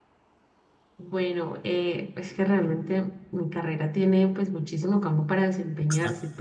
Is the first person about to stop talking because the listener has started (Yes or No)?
No